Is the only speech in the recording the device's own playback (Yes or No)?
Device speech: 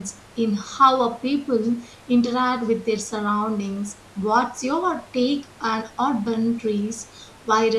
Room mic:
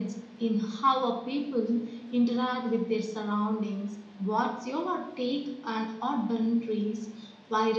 Yes